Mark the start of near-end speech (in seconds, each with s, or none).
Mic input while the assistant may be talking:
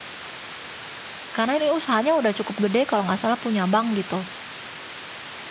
1.4 s